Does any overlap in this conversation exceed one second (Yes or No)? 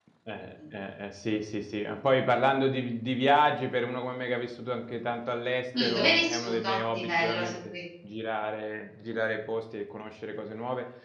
Yes